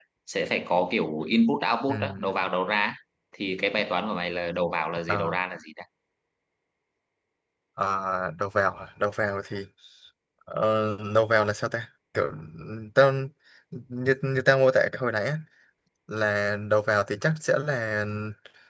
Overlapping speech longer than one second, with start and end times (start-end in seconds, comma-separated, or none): none